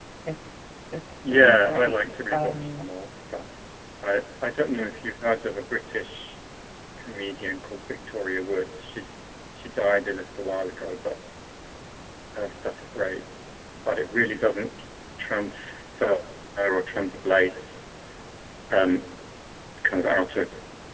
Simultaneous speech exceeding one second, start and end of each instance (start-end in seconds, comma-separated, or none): 1.3-2.9